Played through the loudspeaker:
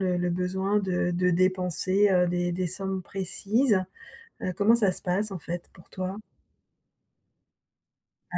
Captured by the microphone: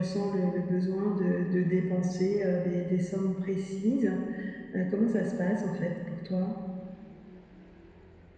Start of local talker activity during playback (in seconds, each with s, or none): none